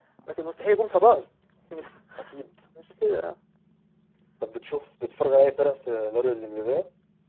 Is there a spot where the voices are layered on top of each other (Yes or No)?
No